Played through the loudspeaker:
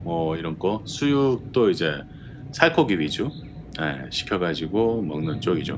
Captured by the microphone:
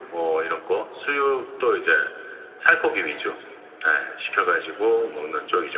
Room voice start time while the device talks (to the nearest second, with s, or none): none